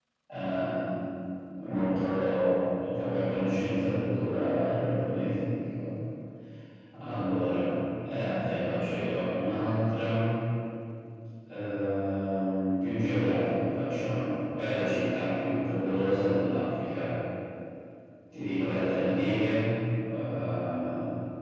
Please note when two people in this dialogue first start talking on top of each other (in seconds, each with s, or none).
none